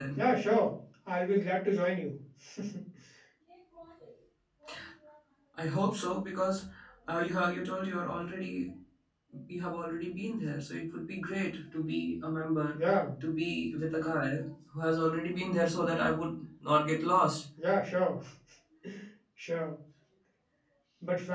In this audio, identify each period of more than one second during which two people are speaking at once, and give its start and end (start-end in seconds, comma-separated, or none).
none